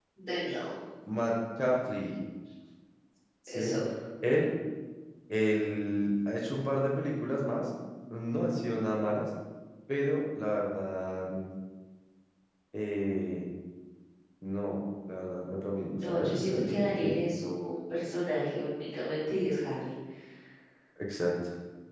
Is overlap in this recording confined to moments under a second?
No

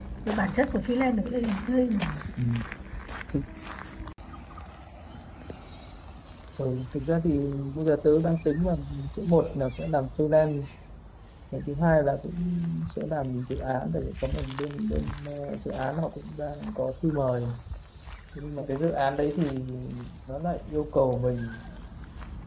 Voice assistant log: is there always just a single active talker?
Yes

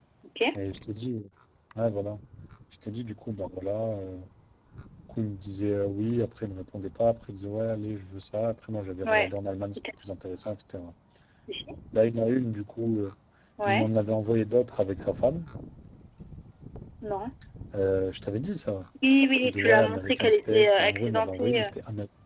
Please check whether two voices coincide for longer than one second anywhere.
Yes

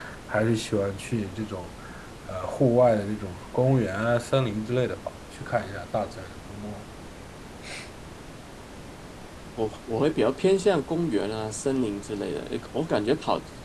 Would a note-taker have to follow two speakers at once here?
No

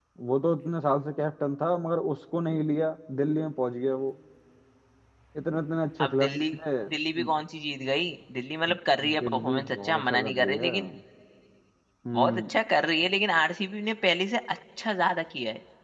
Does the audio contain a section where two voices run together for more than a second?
Yes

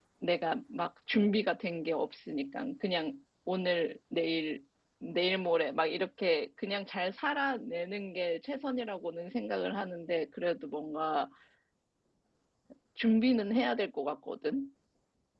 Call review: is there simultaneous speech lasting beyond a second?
No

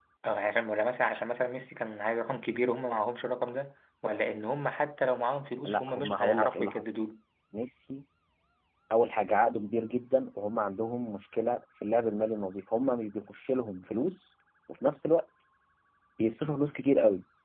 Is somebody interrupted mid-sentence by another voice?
Yes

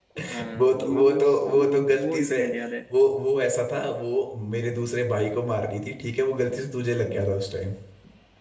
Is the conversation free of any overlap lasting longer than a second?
No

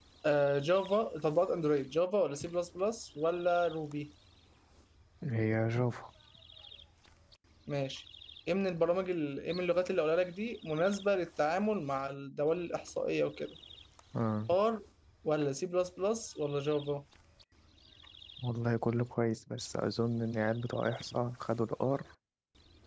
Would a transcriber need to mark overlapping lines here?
No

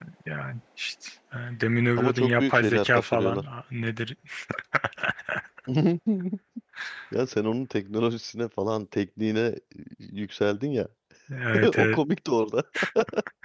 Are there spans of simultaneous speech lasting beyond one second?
Yes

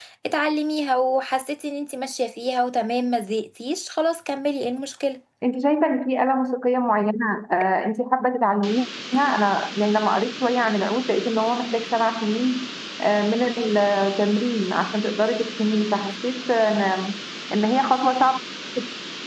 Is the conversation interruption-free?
Yes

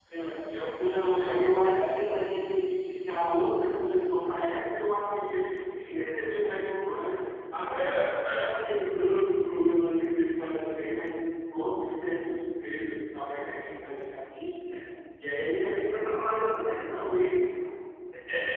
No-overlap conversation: No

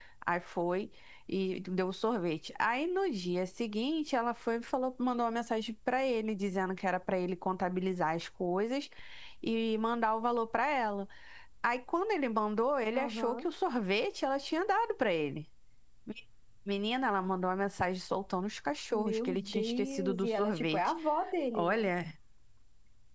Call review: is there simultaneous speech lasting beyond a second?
Yes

